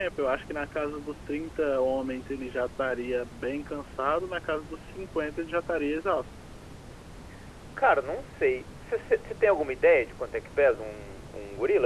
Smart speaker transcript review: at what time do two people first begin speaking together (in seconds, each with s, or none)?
none